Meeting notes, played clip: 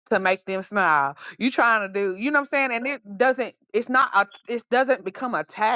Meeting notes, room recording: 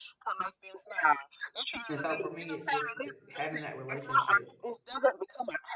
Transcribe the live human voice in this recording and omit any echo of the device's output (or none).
And so for me, it's just th- having that relationship